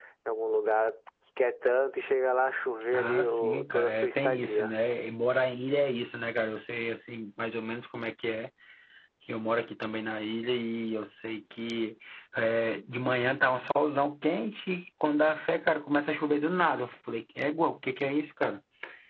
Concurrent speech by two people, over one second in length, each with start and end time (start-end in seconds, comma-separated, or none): 2.9-4.7